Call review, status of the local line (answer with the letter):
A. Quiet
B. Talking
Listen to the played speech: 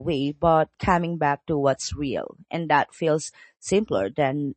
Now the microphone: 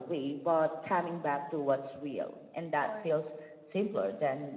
B